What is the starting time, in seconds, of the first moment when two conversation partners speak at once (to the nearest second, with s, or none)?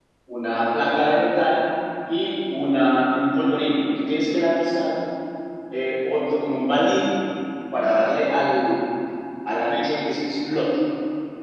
none